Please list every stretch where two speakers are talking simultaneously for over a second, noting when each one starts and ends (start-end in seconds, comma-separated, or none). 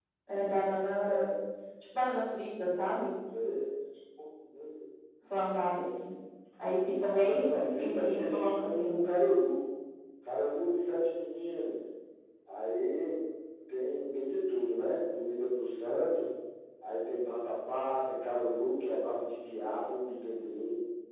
7.1-9.0